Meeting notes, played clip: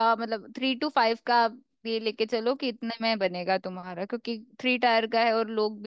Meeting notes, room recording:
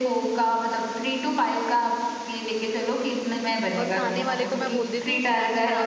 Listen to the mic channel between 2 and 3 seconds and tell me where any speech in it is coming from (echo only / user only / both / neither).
echo only